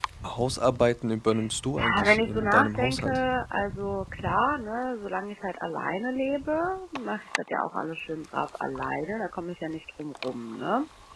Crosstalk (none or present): present